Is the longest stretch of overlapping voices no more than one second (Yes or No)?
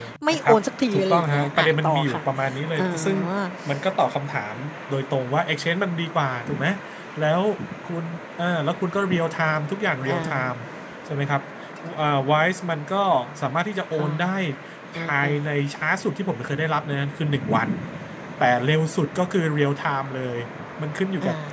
No